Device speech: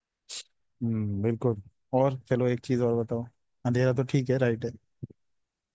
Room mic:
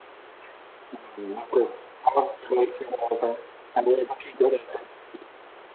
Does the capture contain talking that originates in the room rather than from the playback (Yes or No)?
No